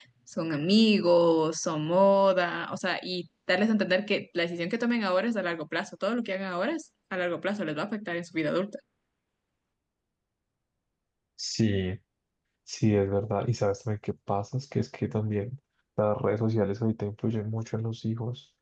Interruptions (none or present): none